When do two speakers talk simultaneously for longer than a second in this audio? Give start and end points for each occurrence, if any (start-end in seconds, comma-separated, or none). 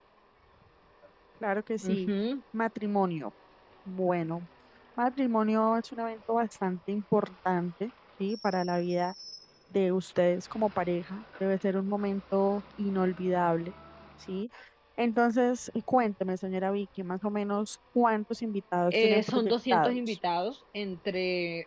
18.9-20.2